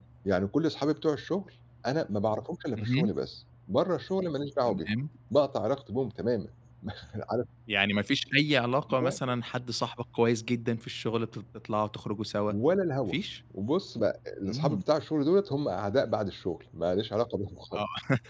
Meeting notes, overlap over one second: none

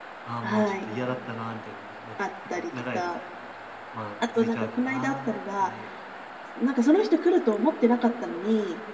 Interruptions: present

